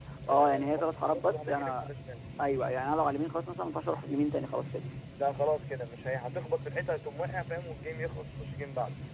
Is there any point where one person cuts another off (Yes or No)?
Yes